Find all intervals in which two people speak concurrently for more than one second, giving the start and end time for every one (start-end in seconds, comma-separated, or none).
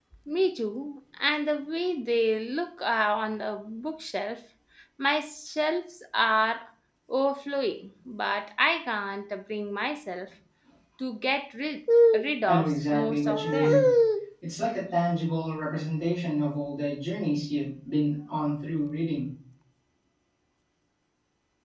12.5-13.7